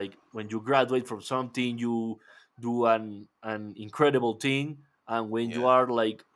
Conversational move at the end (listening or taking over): listening